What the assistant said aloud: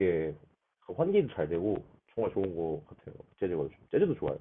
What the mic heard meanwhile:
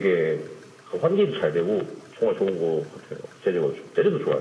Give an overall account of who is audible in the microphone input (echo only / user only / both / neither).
echo only